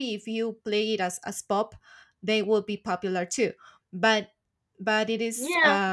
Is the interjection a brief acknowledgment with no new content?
Yes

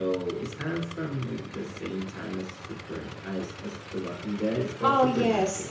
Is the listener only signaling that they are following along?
No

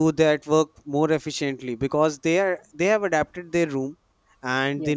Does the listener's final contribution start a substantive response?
No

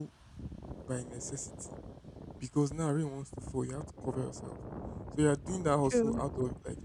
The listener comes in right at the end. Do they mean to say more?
No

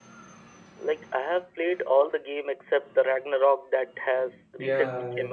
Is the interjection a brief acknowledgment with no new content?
No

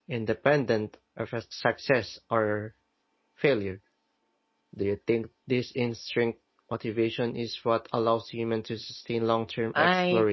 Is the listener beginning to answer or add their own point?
Yes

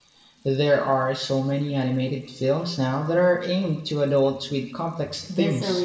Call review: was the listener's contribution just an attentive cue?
No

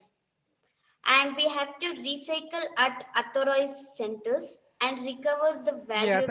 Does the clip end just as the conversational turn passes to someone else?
Yes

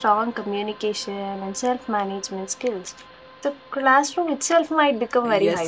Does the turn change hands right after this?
Yes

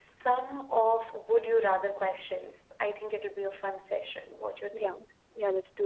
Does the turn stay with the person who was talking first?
No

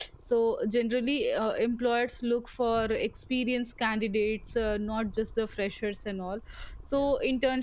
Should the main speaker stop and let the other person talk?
No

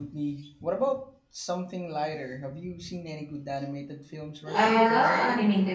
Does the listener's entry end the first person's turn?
Yes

